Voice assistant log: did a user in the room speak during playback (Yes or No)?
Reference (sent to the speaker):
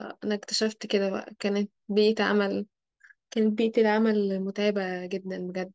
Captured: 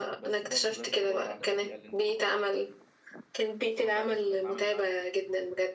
Yes